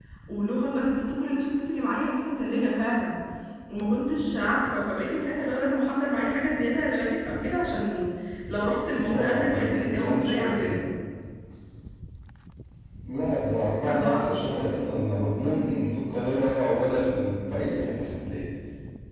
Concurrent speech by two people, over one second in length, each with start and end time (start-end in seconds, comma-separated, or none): 9.1-10.8